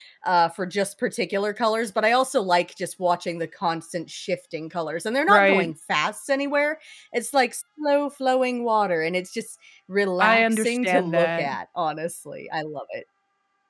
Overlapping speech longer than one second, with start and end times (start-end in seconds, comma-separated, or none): 10.2-11.5